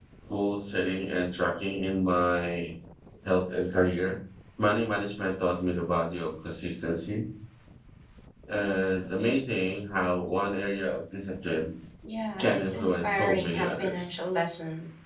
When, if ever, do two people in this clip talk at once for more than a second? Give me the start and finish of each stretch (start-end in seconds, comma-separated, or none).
12.4-14.1